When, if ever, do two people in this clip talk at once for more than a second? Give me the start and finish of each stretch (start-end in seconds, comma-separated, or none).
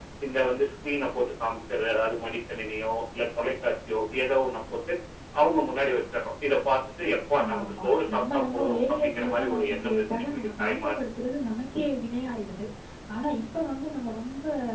7.5-10.9